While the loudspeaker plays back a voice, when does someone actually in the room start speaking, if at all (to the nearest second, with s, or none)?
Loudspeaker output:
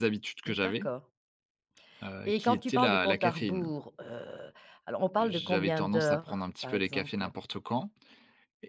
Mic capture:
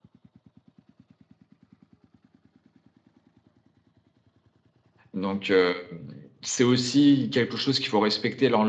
5 s